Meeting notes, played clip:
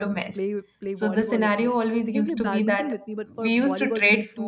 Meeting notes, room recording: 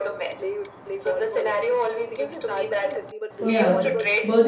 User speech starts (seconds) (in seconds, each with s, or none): 3.4 s